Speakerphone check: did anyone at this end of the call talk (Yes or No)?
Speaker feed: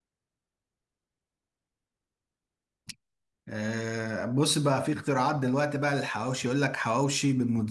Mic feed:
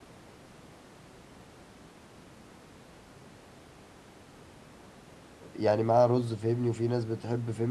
Yes